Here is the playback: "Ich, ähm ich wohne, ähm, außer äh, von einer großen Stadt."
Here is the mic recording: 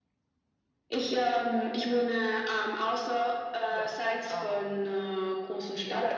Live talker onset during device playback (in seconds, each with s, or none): 3.7 s